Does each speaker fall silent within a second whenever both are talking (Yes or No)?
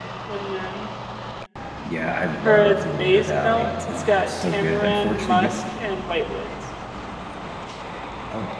No